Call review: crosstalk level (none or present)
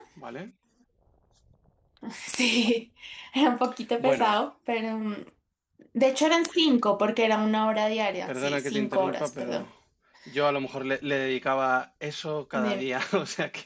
present